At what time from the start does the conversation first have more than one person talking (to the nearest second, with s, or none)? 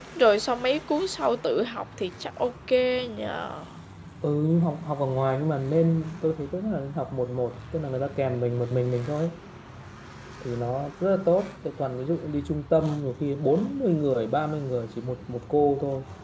none